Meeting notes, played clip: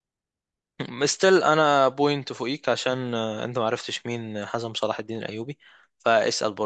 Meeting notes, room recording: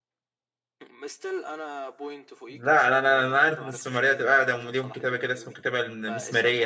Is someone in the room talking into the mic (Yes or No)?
Yes